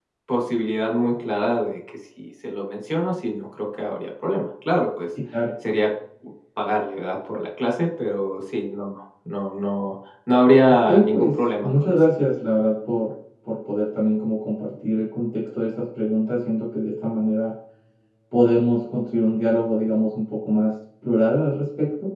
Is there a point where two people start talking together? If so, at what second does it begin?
10.7 s

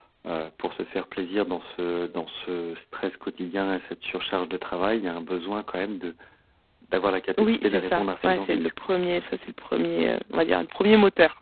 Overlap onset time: 7.4 s

